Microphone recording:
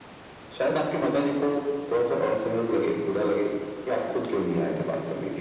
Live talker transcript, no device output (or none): none